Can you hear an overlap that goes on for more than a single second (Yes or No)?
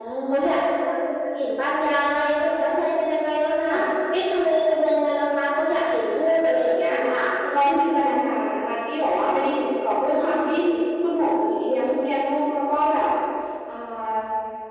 No